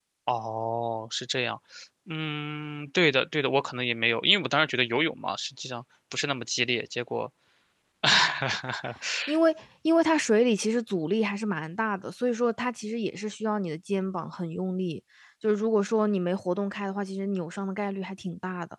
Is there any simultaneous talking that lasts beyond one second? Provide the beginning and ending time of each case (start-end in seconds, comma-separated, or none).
none